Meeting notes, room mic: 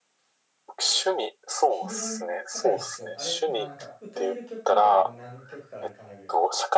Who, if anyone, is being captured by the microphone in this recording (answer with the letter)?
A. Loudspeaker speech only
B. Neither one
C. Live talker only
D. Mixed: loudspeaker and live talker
D